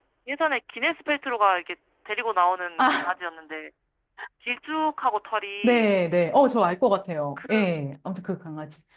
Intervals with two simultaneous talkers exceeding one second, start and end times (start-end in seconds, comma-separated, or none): none